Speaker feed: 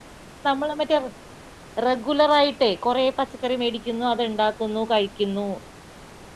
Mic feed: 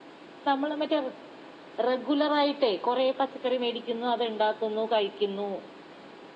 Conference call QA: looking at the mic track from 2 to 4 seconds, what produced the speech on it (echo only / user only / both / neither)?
echo only